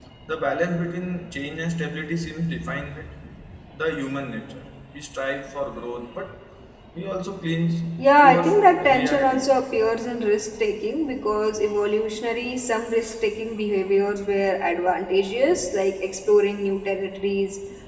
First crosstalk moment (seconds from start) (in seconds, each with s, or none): 8.2 s